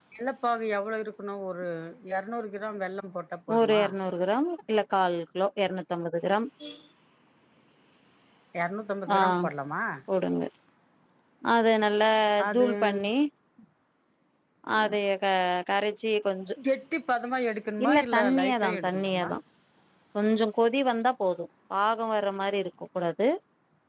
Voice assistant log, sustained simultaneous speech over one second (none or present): present